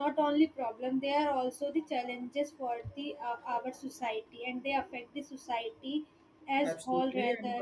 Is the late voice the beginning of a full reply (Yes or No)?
Yes